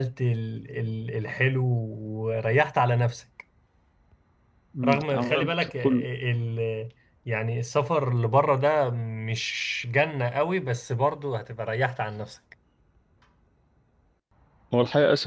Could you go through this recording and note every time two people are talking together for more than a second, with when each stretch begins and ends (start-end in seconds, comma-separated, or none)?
4.8-6.0